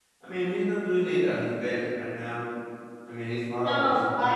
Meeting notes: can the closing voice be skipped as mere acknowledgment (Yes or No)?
No